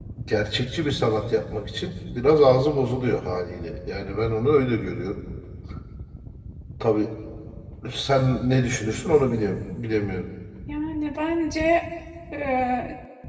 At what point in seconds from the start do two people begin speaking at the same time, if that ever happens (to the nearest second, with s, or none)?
none